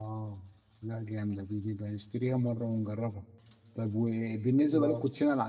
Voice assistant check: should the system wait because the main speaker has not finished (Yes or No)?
Yes